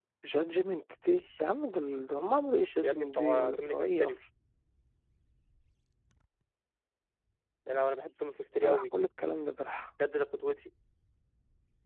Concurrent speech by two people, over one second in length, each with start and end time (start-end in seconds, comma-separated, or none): 2.8-4.2